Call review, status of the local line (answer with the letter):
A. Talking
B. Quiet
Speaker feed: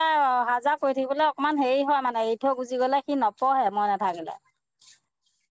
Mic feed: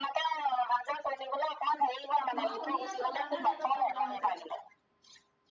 A